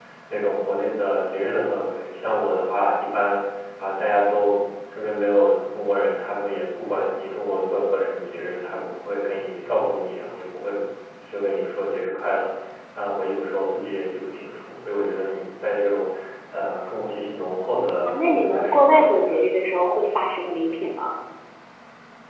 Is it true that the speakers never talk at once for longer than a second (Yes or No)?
No